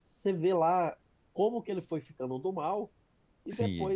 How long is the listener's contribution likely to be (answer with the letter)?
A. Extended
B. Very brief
B